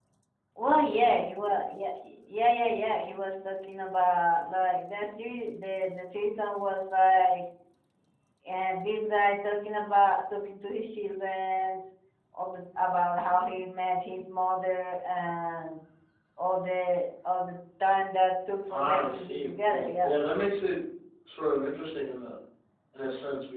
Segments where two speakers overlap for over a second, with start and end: 18.7-20.1

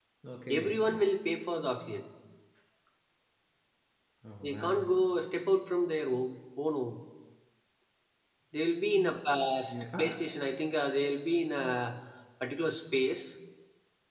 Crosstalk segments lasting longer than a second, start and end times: none

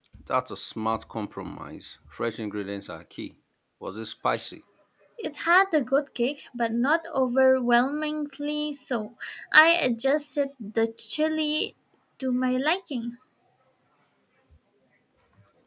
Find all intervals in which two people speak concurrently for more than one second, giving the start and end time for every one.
none

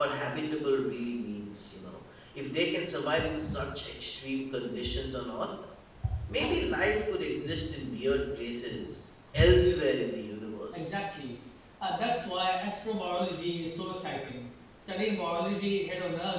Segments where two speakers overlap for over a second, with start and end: none

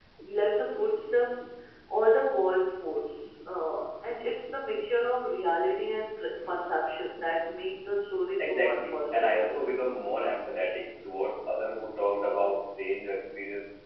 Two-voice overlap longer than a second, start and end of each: 8.4-9.6

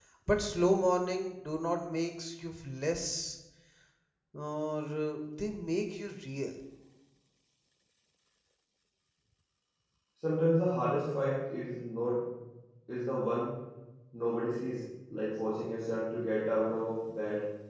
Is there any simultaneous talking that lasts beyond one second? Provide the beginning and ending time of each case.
none

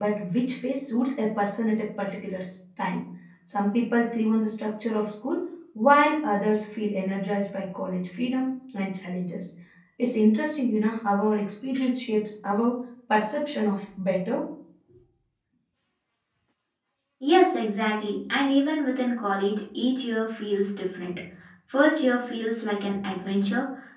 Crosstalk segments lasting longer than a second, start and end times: none

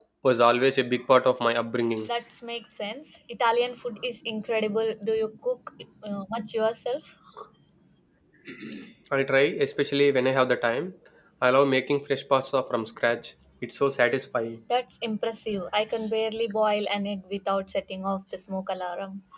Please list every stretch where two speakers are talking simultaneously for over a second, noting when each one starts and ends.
none

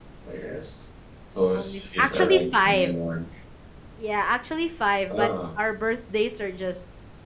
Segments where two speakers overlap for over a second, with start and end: 1.5-3.0

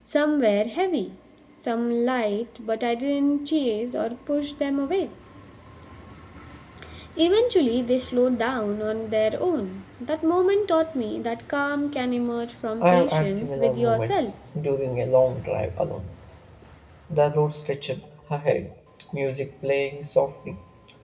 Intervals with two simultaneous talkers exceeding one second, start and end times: 12.8-14.3

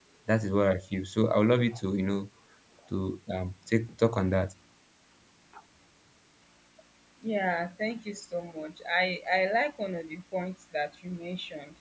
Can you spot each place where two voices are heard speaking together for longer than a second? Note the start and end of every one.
none

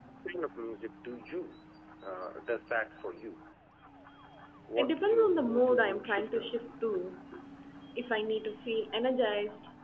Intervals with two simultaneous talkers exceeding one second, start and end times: 4.8-6.5

